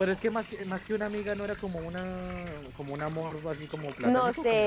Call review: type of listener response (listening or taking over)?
taking over